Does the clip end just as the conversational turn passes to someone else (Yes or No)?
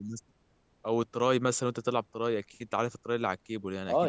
Yes